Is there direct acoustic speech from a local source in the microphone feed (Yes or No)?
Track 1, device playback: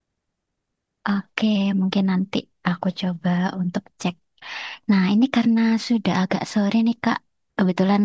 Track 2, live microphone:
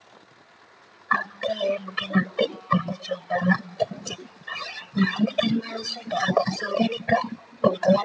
No